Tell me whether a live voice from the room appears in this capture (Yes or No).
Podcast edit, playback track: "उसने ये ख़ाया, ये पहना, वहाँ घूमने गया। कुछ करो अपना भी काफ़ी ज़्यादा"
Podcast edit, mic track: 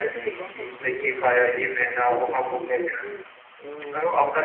Yes